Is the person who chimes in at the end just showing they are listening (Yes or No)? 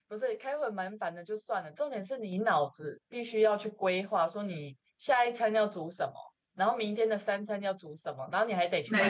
Yes